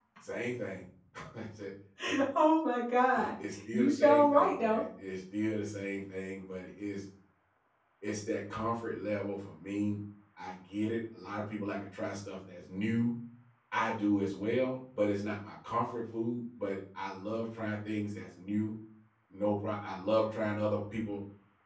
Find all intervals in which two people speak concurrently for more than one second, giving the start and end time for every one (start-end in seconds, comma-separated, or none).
3.1-4.8